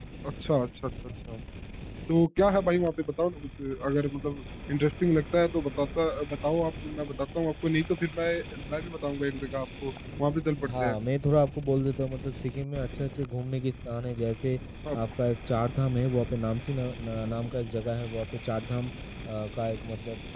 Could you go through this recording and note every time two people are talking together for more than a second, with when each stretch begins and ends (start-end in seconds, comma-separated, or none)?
none